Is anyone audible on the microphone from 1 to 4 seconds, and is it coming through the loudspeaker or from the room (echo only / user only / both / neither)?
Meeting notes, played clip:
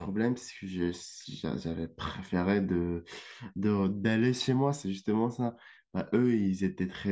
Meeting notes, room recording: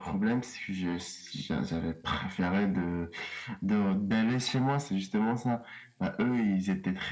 echo only